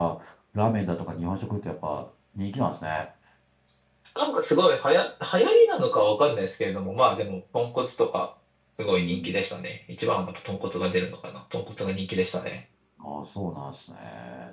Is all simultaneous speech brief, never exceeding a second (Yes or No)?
Yes